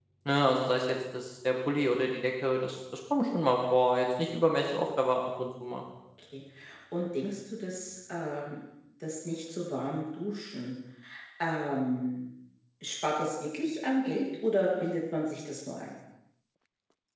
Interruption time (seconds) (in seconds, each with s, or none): none